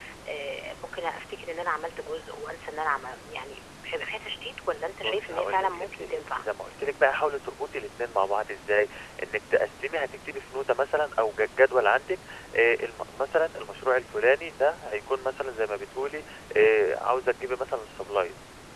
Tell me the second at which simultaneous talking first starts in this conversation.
5.0 s

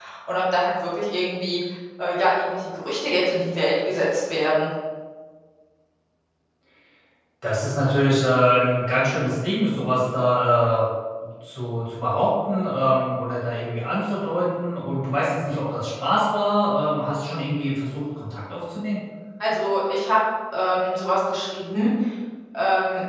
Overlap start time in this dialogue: none

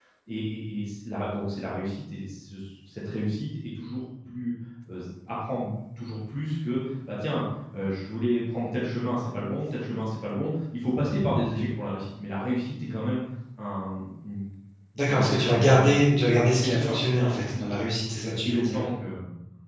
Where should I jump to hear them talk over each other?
15.1 s

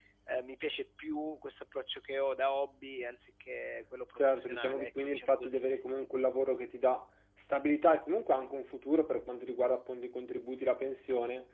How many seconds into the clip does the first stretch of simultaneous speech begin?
4.2 s

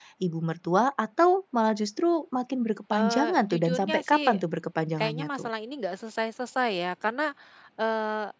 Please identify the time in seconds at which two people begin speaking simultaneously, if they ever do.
2.9 s

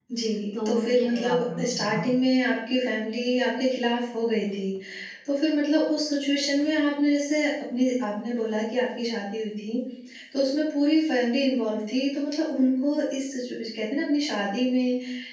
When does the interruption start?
0.5 s

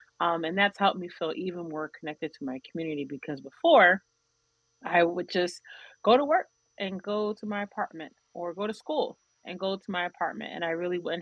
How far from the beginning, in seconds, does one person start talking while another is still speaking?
none

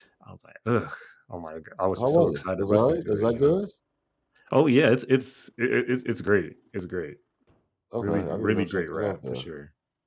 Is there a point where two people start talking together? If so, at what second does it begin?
2.0 s

